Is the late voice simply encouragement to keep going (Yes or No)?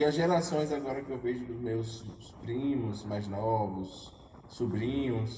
Yes